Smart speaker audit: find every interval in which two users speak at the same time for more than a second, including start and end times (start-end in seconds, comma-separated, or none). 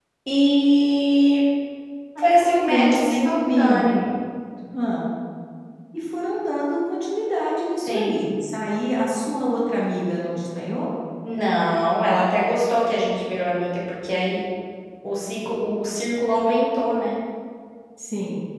2.2-3.8